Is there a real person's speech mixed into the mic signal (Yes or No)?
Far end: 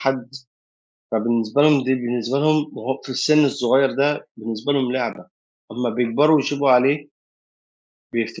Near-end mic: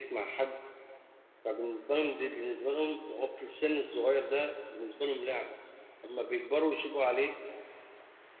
No